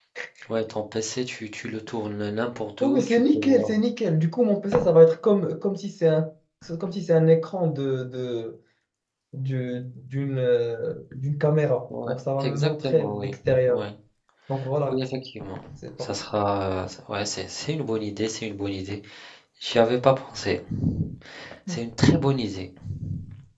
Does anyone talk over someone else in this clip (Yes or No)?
Yes